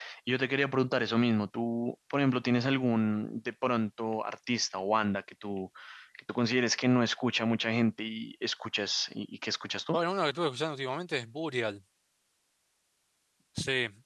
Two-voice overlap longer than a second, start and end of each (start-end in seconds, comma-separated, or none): none